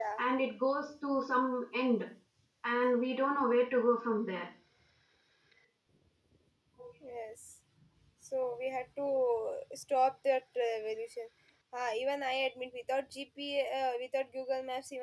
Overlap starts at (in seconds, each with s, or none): none